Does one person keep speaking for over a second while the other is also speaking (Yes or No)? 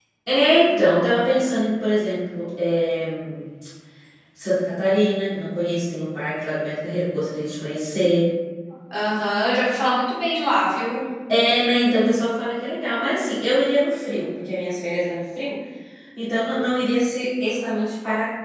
No